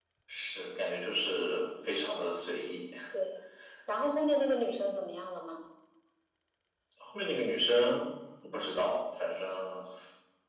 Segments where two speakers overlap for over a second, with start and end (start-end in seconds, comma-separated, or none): none